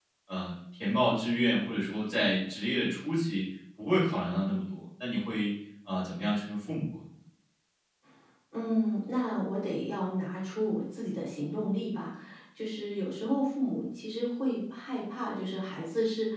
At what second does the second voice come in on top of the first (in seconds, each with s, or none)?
none